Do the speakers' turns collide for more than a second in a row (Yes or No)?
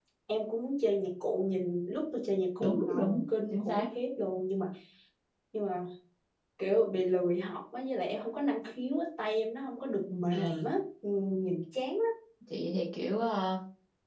Yes